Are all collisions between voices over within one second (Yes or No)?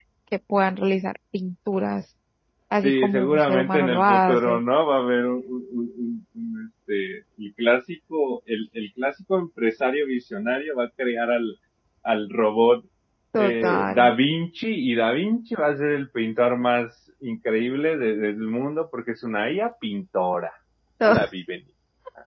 No